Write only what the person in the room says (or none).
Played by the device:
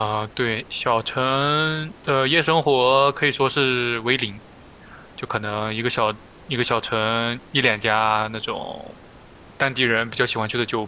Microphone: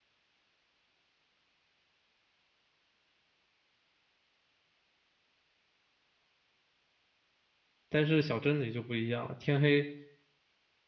但是小镇里就不一样了，天黑